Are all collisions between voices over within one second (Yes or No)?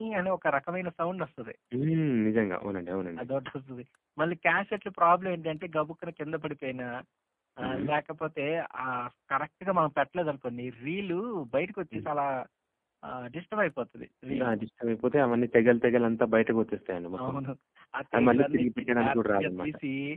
No